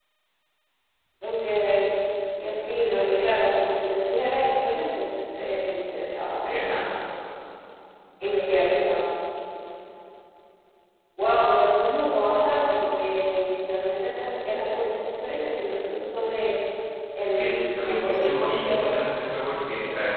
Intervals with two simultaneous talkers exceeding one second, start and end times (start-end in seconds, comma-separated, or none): 17.2-18.9